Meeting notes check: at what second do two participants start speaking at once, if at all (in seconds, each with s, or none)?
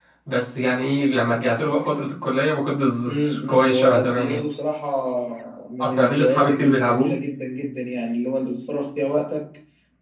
3.0 s